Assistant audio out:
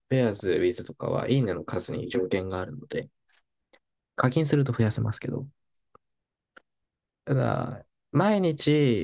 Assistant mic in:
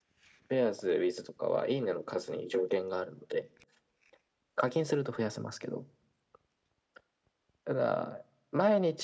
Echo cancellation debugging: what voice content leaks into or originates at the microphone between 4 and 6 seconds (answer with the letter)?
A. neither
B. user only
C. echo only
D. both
C